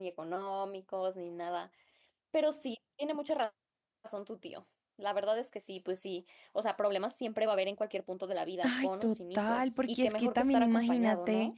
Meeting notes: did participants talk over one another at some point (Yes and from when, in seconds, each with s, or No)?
Yes, from 8.6 s